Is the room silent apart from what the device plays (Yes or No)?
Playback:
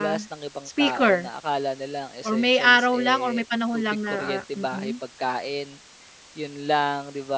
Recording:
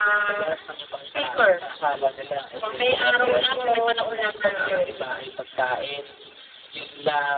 No